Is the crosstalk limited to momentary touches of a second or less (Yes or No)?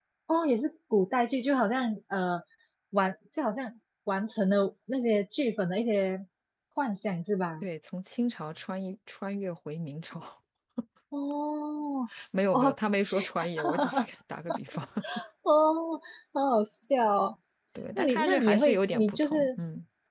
No